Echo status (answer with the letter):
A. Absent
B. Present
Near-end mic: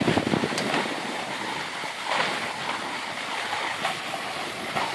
A